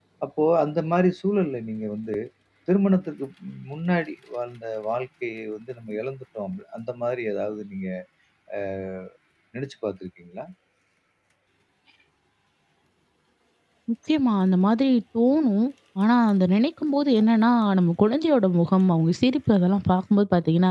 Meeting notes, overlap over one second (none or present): none